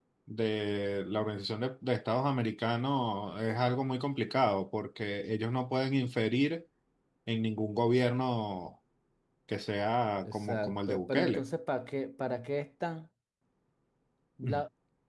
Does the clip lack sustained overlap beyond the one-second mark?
No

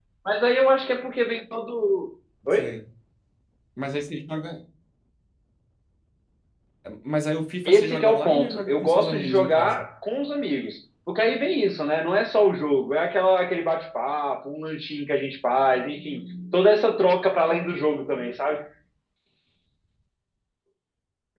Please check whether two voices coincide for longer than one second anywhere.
Yes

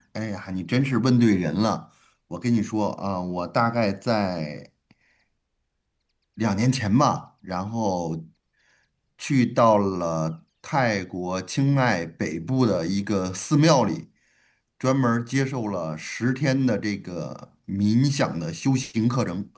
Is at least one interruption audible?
No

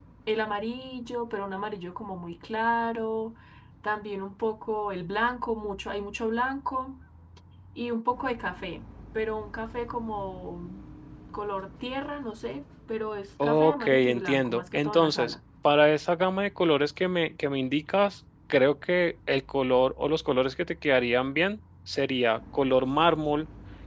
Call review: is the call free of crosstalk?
No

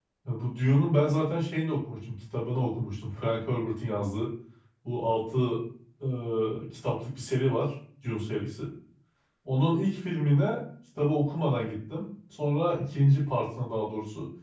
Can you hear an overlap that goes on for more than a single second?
No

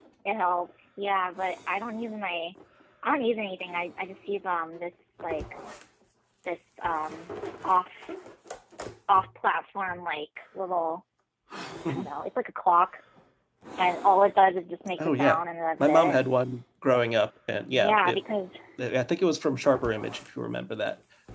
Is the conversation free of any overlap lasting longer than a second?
Yes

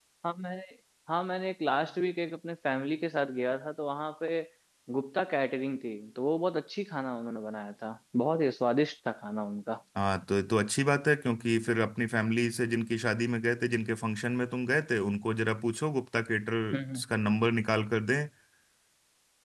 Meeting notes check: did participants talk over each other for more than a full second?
No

